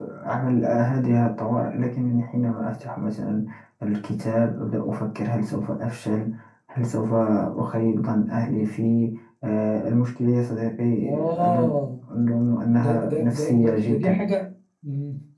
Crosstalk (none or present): present